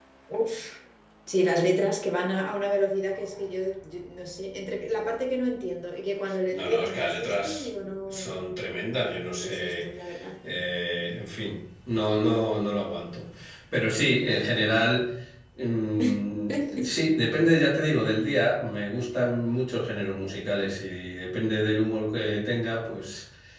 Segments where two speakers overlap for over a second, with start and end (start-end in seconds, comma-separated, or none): 6.5-8.4